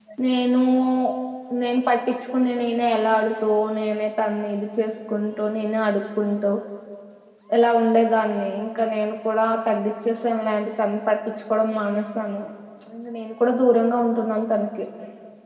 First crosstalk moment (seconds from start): none

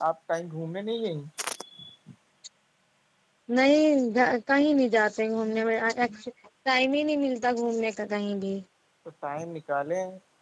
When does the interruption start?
none

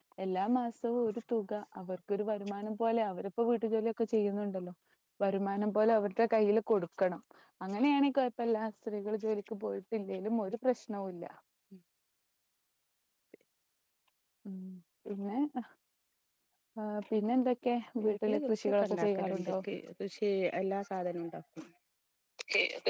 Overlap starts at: 18.0 s

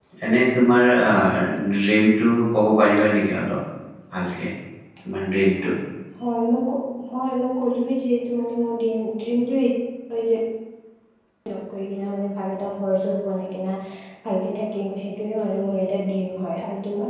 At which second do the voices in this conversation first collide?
none

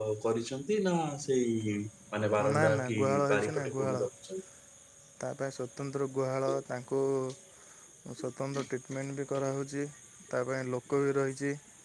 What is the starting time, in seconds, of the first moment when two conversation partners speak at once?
2.4 s

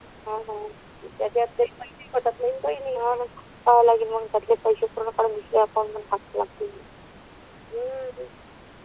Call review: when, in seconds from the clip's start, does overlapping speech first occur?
none

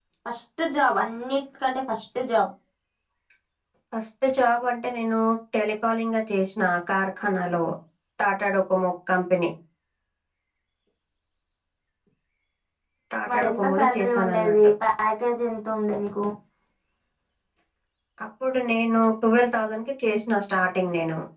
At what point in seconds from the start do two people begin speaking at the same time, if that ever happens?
13.3 s

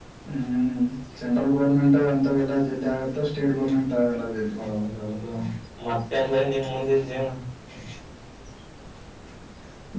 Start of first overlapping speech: none

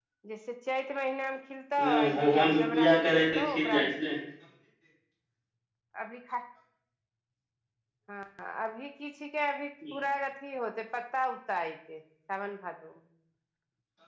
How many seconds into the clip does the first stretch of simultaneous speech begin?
1.8 s

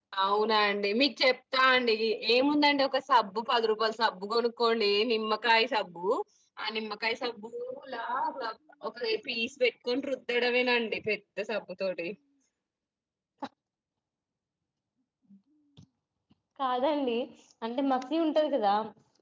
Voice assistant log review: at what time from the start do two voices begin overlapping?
none

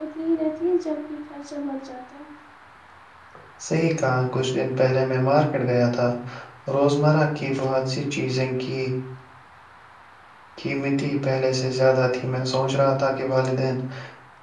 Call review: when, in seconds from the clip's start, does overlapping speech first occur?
none

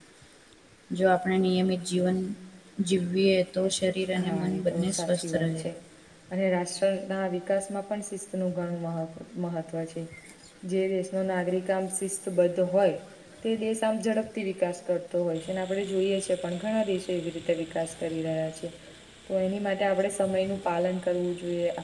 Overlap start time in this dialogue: 4.2 s

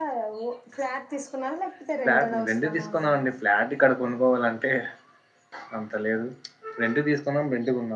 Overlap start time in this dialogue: 2.0 s

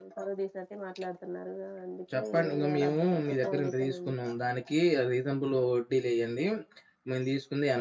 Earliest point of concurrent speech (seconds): 2.1 s

